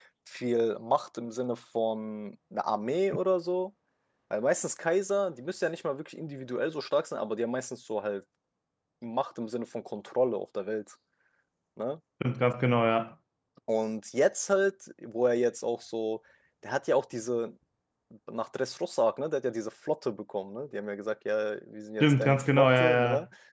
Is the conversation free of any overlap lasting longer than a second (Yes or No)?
No